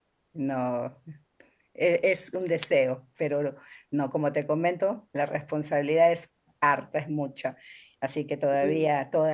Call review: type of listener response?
listening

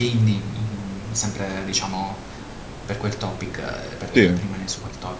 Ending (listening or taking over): listening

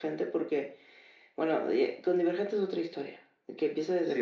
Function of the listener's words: listening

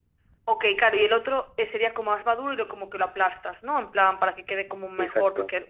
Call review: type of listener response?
listening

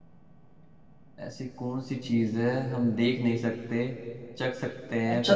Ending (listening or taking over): taking over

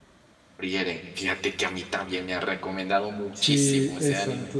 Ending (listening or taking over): taking over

